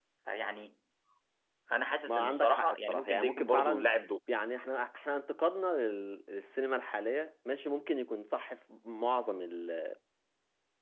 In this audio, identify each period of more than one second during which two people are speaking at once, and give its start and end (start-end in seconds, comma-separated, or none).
2.1-3.9